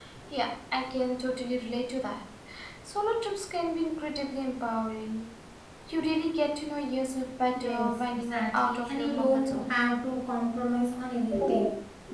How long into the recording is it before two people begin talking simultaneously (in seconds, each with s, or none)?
7.6 s